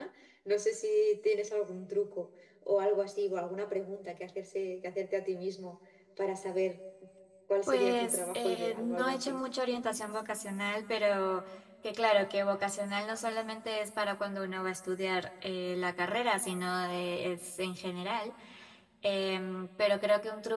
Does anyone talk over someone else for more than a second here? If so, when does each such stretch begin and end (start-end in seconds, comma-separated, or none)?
7.7-9.4